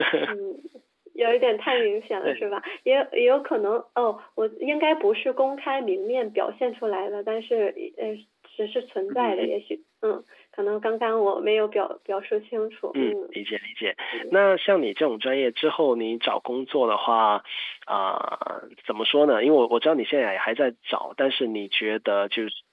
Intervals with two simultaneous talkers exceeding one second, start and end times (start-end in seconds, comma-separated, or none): none